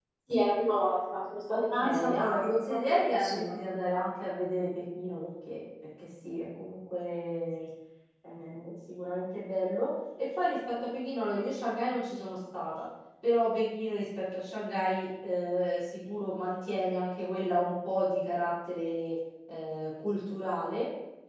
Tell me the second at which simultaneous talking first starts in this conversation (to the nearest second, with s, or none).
1 s